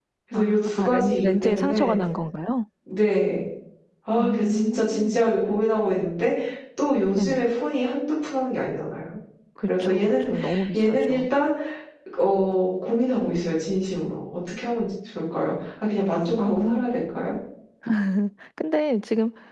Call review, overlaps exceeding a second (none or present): present